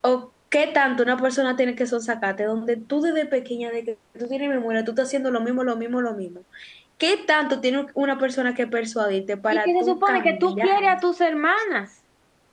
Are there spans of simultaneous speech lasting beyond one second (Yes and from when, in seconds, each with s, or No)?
Yes, from 9.5 s